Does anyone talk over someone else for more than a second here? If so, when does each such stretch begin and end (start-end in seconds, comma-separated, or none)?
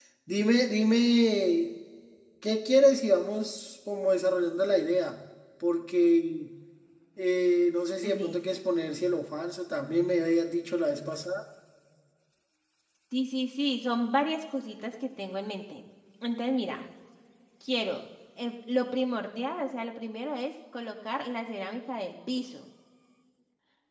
none